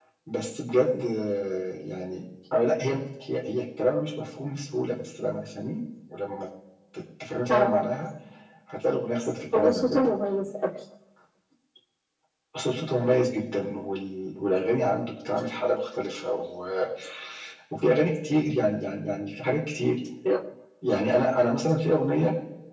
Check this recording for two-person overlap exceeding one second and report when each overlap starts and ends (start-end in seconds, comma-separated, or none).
none